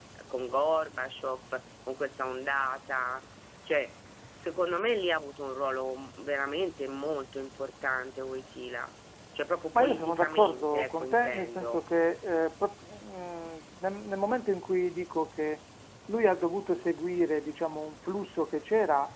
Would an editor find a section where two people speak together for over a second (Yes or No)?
Yes